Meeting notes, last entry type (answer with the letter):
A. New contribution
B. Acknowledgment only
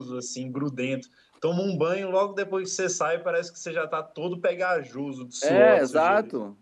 A